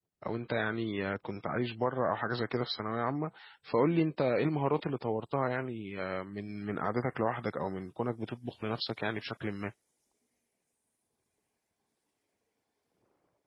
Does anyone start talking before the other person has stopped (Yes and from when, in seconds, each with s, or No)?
No